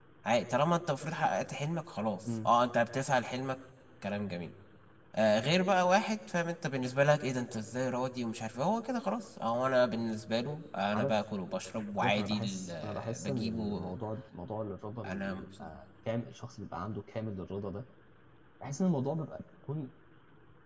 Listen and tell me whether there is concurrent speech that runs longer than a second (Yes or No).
Yes